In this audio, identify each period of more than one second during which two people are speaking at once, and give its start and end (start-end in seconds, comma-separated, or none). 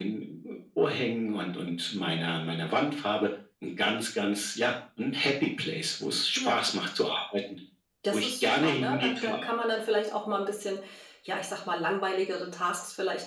8.1-9.4